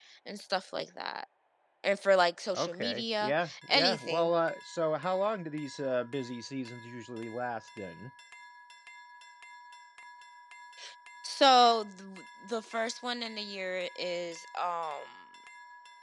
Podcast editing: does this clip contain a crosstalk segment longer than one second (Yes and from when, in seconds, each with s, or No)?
Yes, from 2.6 s